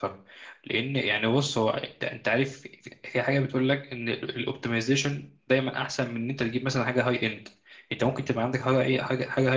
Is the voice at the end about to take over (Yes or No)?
No